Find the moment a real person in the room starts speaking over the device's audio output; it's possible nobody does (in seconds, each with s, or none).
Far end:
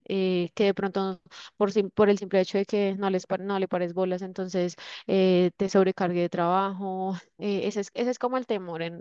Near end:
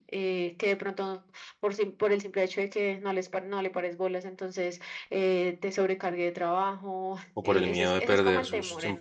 7.3 s